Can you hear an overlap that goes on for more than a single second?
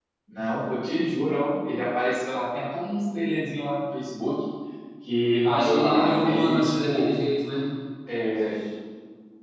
Yes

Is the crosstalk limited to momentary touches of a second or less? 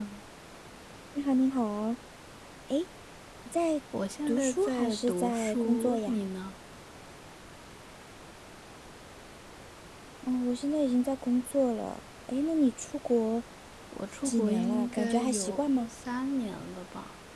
No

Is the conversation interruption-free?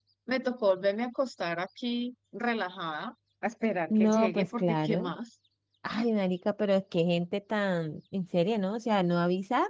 No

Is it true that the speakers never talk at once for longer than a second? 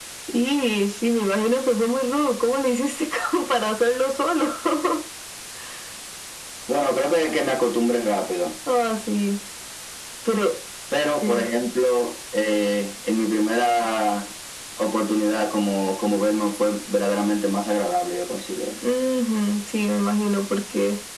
Yes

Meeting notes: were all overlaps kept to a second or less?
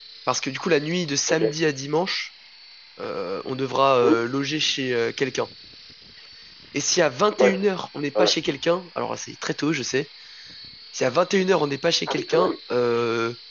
Yes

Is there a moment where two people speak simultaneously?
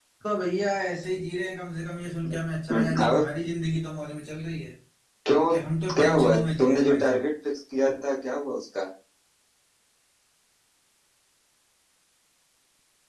Yes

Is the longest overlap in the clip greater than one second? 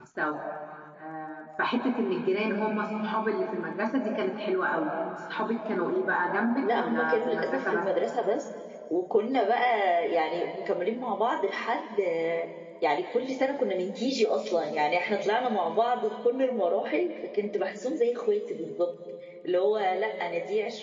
Yes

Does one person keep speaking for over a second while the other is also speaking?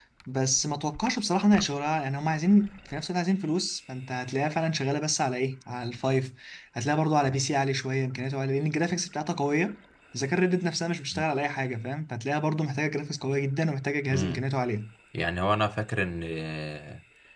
No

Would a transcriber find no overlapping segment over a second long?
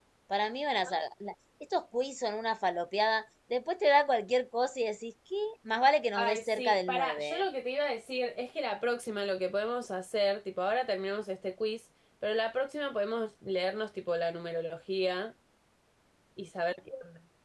No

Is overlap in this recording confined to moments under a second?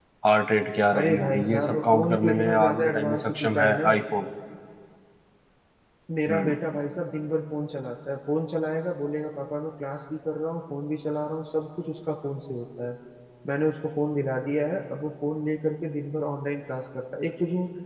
No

